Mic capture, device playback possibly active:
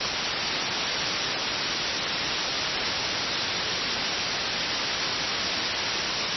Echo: none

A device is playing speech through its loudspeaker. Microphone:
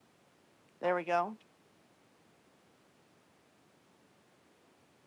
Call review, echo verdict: none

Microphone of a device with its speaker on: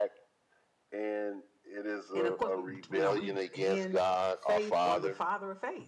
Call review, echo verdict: present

